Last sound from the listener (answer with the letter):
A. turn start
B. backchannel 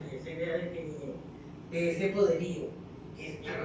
A